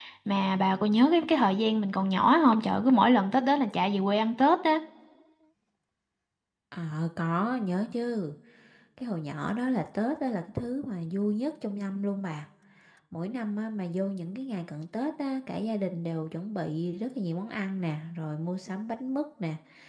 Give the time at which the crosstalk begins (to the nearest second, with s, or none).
none